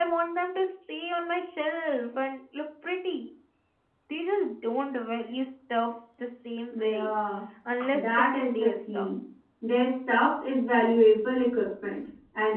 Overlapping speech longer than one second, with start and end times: 7.9-9.2

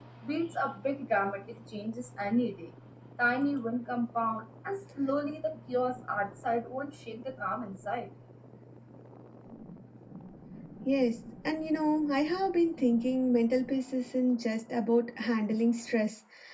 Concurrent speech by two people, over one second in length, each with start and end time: none

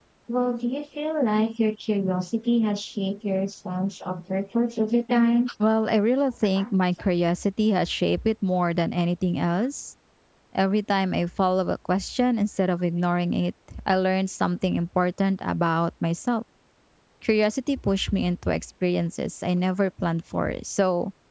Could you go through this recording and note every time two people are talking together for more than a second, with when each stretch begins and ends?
none

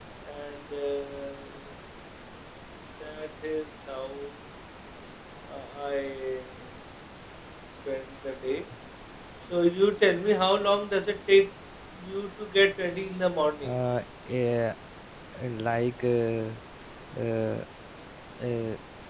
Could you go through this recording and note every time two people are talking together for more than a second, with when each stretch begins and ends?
none

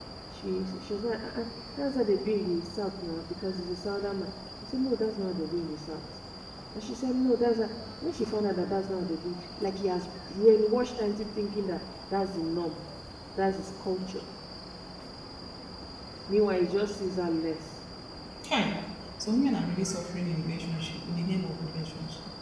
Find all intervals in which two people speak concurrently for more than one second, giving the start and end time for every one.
none

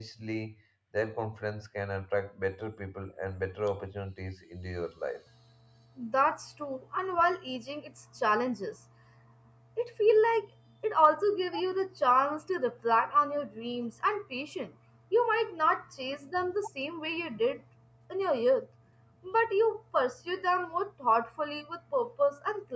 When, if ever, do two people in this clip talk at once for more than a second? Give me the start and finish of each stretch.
none

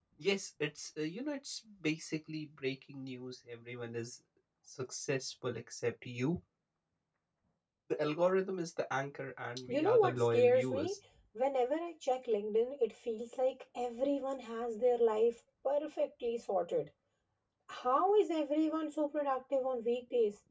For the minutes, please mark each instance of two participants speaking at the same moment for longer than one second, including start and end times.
9.7-10.9

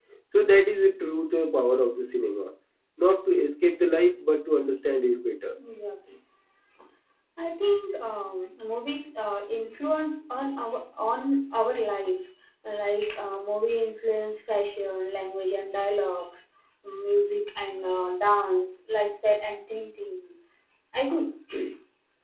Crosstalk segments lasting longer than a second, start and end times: none

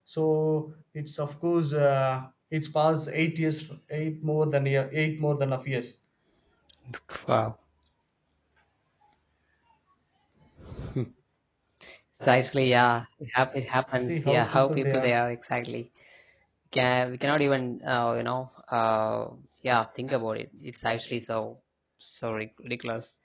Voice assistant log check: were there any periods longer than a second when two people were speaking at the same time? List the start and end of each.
13.9-15.2

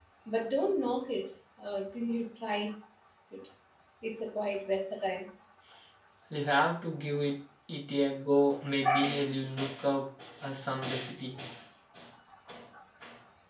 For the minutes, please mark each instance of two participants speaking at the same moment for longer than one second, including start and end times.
none

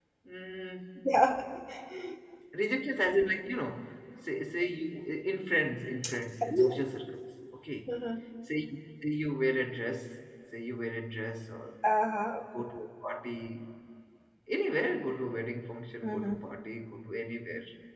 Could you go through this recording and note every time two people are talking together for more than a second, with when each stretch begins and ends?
none

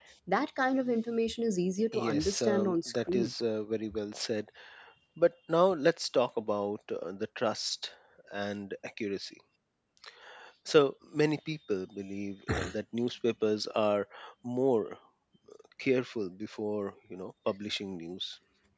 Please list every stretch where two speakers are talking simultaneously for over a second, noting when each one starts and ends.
1.9-3.3

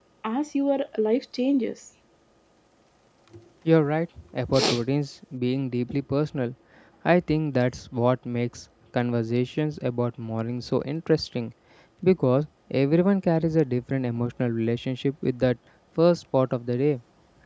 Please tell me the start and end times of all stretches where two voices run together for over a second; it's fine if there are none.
none

